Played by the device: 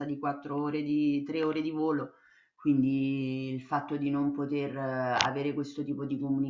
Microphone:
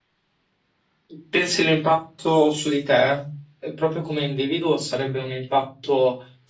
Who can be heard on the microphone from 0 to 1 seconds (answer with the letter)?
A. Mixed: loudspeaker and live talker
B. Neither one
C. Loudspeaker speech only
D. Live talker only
B